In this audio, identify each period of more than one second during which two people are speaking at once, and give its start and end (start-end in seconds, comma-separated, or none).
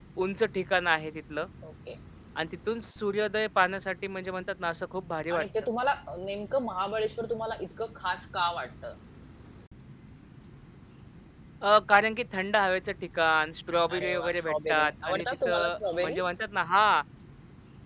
14.0-16.2